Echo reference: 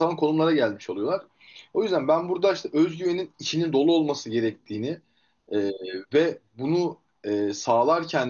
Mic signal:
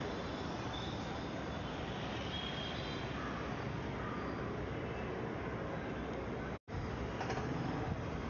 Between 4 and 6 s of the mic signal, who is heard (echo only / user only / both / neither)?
neither